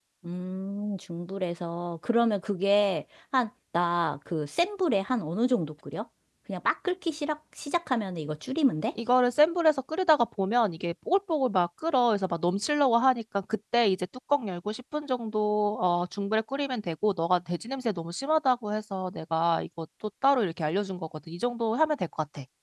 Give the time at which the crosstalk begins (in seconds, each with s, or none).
none